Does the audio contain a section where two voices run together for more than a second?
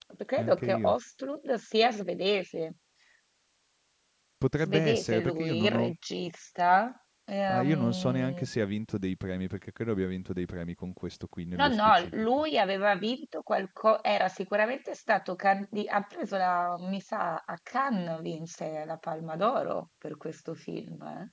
Yes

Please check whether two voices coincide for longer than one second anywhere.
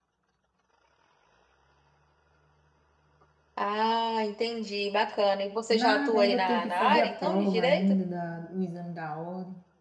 Yes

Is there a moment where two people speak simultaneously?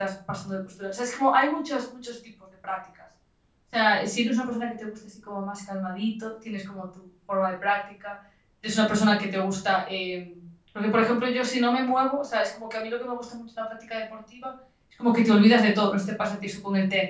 No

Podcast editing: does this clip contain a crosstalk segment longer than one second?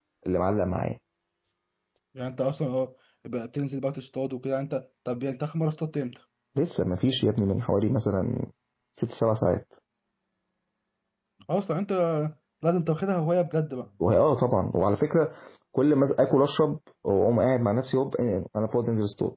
No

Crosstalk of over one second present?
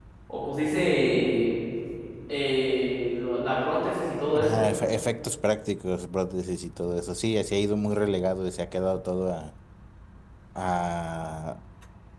No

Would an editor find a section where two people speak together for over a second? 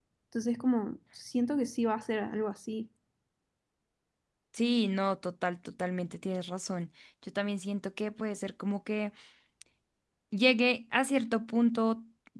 No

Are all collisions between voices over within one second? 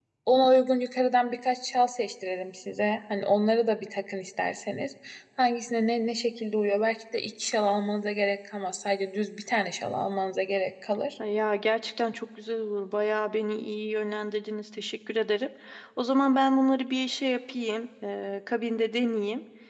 Yes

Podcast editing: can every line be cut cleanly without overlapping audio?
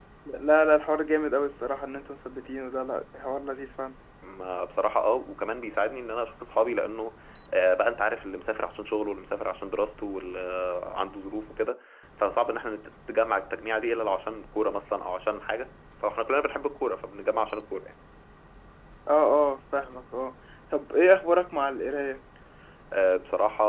Yes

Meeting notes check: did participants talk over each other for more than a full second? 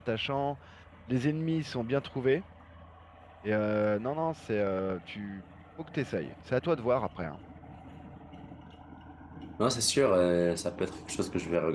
No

